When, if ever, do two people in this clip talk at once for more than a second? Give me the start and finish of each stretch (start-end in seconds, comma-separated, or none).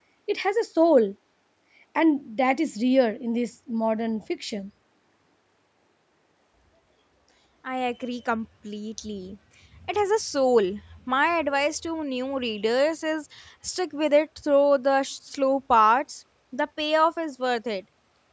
none